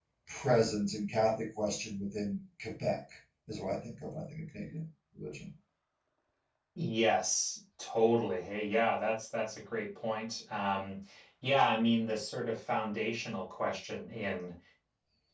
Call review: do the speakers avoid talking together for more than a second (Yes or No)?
Yes